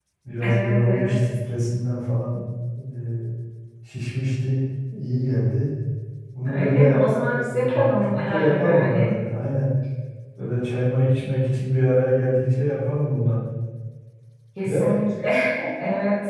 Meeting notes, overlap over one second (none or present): present